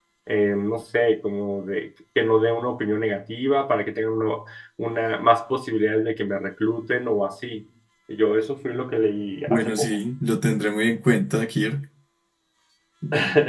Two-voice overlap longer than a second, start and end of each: none

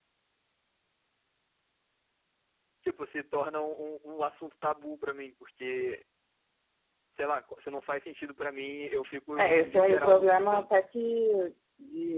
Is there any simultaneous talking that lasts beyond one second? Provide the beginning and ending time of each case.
9.4-10.7

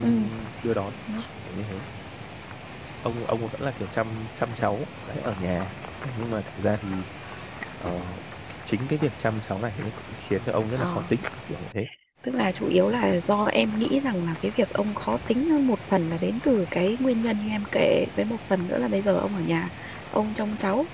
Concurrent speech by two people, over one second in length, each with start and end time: none

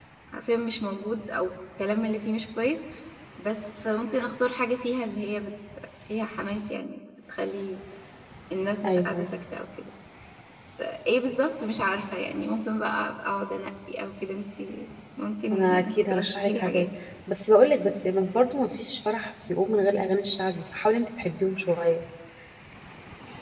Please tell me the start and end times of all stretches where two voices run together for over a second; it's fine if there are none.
15.5-16.9

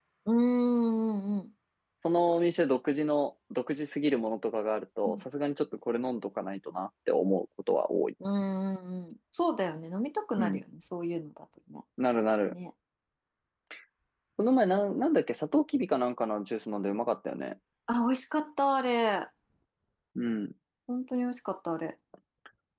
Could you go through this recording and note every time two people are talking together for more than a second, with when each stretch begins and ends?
none

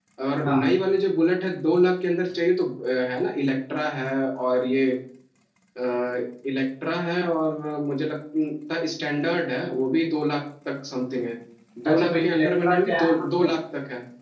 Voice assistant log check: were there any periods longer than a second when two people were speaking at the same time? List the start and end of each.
11.9-13.3

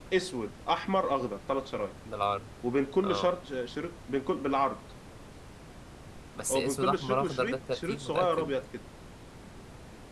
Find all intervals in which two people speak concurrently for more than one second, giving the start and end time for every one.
6.5-8.5

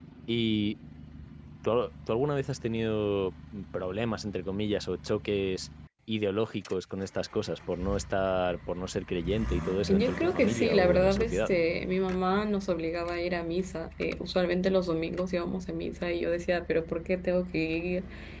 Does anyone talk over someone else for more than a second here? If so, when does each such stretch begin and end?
9.9-11.5

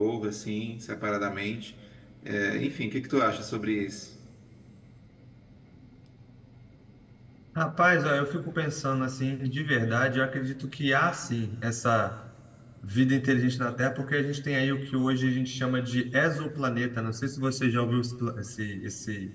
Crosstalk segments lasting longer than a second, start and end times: none

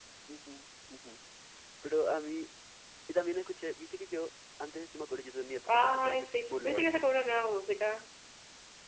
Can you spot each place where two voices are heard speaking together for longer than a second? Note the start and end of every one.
5.7-6.9

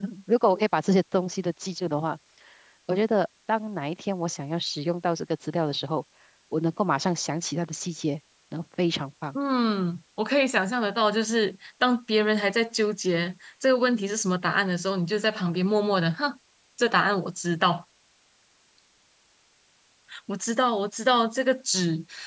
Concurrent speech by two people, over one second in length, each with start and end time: none

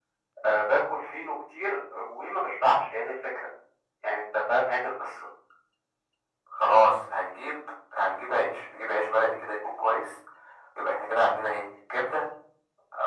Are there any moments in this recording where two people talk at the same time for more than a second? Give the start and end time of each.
none

